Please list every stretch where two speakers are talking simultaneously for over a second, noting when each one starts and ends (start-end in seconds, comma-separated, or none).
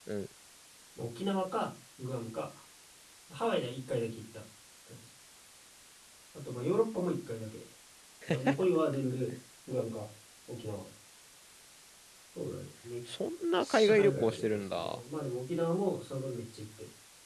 13.6-15.0